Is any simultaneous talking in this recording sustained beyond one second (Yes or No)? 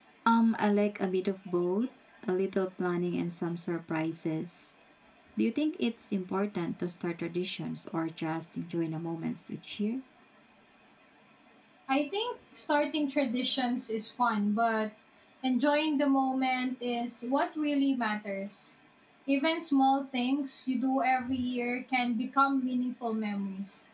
No